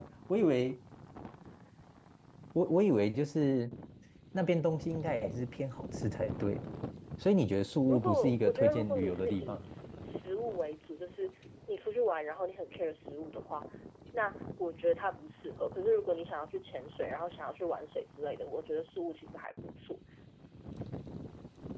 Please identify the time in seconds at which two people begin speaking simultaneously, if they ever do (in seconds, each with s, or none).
7.9 s